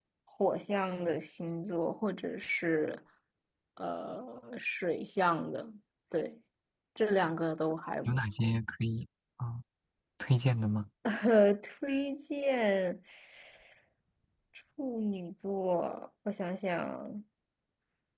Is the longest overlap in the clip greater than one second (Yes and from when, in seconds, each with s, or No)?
No